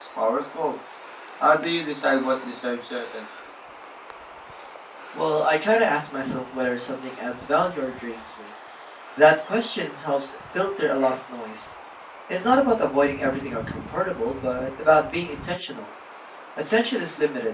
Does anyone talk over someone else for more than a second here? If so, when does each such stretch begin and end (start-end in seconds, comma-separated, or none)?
none